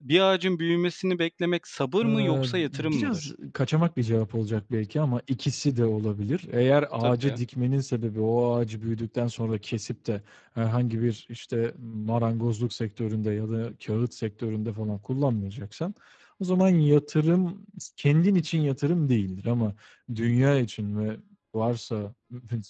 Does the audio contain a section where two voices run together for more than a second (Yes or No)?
Yes